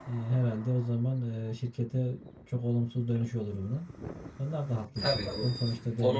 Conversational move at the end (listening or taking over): taking over